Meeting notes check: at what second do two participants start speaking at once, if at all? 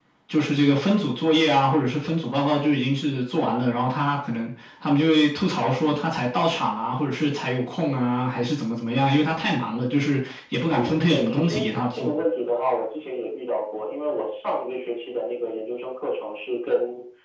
10.7 s

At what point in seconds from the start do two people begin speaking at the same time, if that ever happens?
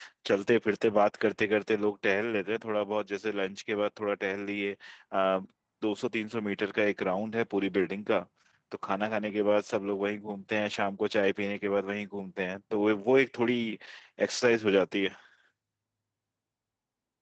none

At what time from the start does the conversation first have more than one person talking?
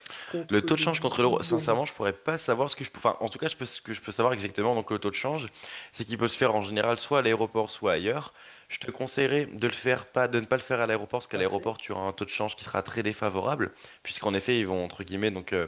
0.5 s

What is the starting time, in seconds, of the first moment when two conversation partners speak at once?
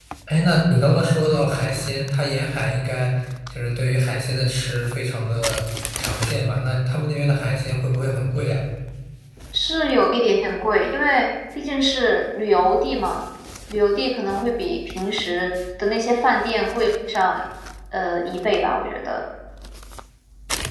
none

